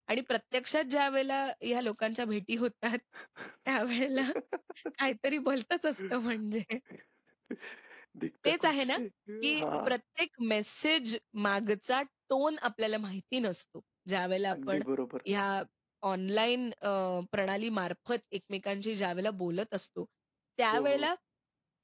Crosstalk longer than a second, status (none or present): none